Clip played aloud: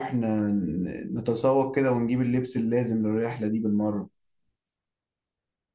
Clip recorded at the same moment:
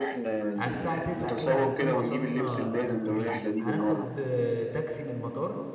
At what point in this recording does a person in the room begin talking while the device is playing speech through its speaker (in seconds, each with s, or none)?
0.6 s